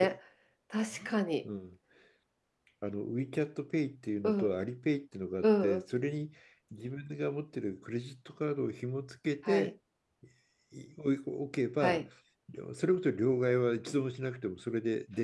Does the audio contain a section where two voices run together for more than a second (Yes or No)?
No